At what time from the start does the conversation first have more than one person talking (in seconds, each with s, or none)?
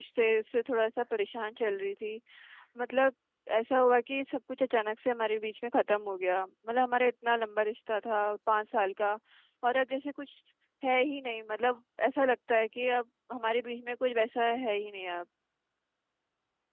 none